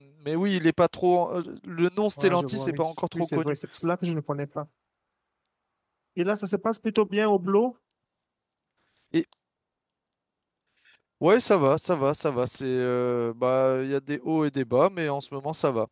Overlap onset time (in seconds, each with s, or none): 2.2 s